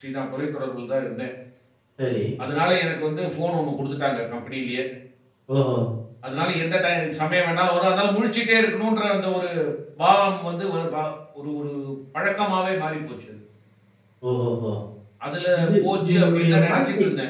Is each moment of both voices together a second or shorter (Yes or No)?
No